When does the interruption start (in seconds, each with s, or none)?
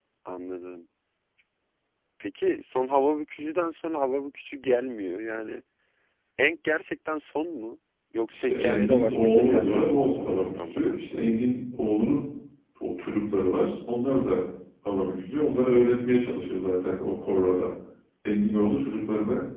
8.3 s